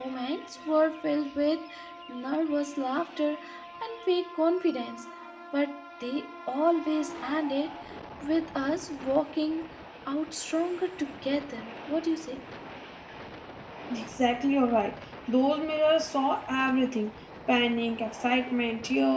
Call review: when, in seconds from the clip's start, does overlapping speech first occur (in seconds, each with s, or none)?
none